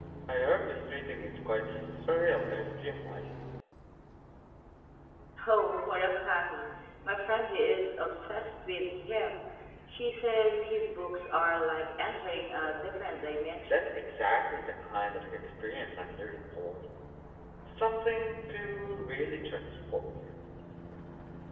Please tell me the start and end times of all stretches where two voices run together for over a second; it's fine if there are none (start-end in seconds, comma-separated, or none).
none